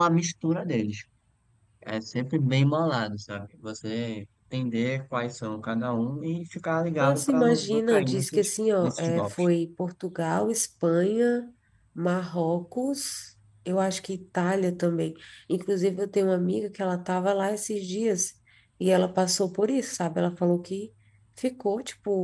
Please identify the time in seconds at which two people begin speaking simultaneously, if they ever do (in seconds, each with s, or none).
7.0 s